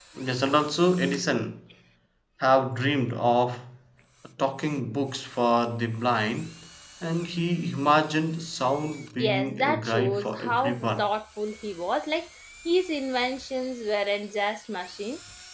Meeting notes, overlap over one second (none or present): present